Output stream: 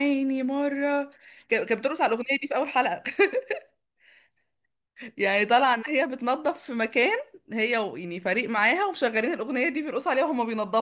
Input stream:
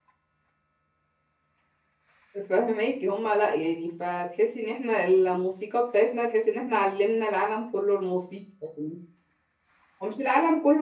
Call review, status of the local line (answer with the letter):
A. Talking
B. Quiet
A